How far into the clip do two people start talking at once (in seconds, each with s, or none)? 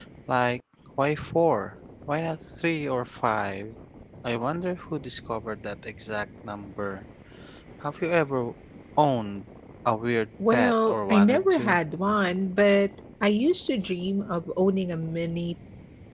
10.4 s